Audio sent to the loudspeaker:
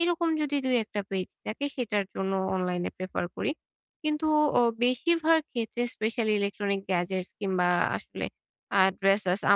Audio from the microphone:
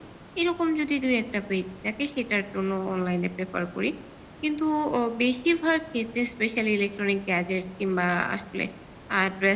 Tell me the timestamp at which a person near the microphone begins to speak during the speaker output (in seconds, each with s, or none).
none